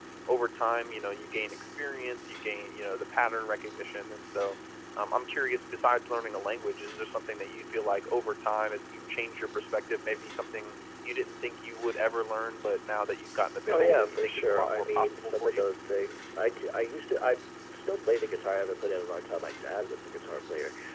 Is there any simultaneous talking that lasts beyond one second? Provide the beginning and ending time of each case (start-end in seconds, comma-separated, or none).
13.7-15.7